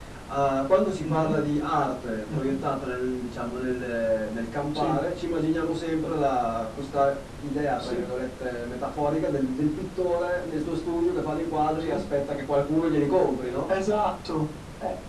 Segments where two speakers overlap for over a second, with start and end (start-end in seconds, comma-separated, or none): none